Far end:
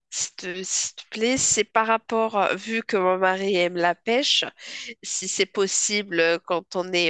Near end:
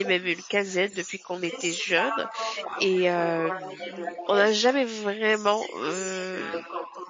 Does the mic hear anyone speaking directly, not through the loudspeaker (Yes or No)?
Yes